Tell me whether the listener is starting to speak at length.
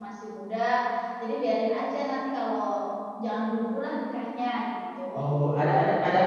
Yes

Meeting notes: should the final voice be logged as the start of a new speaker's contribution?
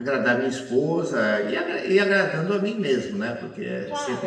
Yes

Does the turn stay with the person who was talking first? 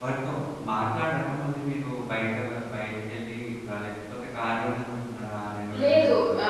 No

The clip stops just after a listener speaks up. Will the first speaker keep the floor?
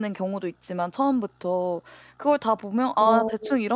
Yes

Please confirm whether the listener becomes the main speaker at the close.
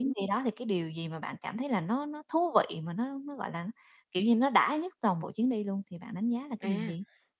Yes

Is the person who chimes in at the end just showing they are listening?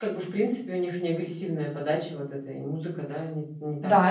No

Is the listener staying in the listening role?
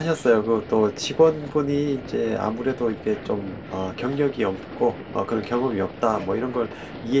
Yes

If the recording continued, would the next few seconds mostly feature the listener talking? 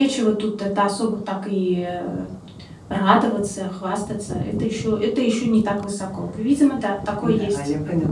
Yes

